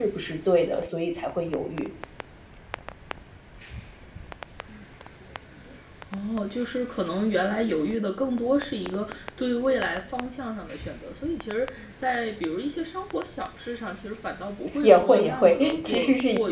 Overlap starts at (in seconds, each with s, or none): 14.8 s